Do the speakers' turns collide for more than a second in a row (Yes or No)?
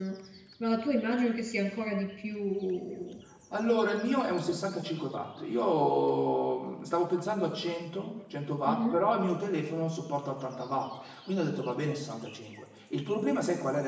No